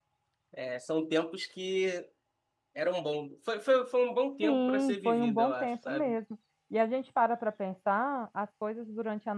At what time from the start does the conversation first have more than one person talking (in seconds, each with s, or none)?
4.4 s